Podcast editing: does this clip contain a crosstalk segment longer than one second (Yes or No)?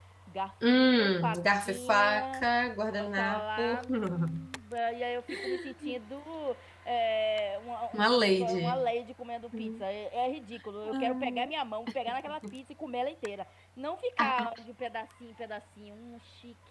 Yes